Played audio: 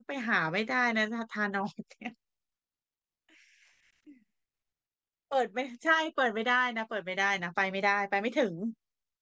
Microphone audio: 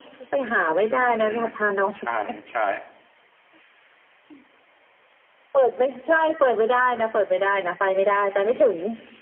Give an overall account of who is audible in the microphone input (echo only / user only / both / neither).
both